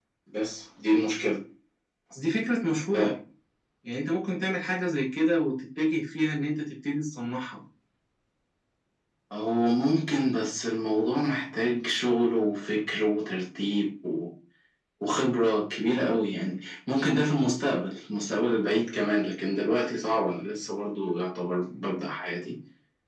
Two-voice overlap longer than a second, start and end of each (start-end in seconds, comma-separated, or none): none